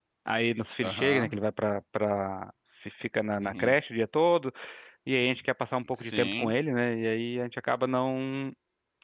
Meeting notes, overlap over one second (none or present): none